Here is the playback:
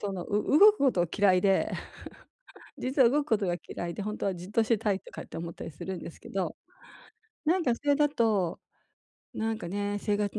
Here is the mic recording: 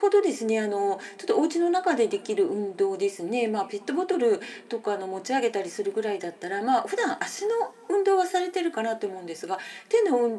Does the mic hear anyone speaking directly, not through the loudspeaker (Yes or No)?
Yes